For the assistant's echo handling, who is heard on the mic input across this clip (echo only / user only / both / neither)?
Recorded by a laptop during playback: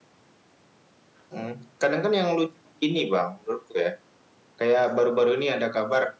echo only